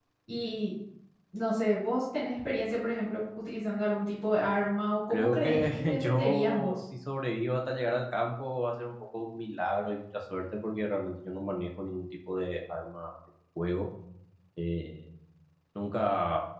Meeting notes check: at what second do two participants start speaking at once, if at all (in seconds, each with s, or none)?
5.1 s